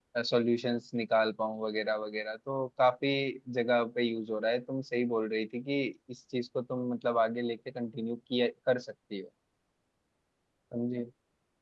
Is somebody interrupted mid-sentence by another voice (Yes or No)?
No